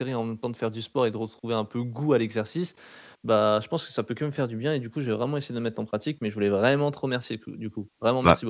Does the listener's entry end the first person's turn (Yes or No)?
Yes